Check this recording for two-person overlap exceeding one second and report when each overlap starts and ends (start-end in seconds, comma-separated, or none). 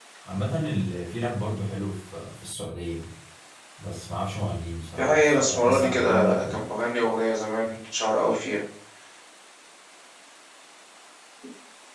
5.0-6.6